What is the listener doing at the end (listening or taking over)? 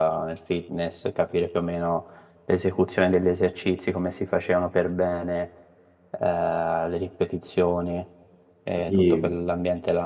listening